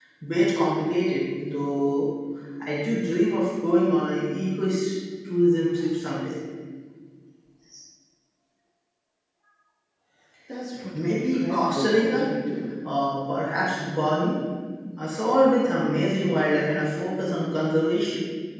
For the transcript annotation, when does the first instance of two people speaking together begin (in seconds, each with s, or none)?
11.0 s